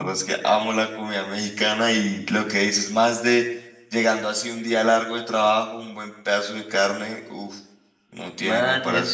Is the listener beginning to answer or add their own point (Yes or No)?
Yes